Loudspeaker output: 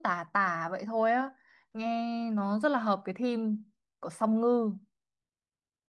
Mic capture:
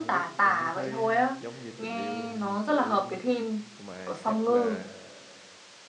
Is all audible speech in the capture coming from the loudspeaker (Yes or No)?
No